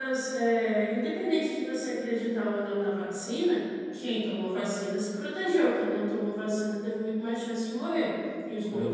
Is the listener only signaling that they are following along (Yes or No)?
Yes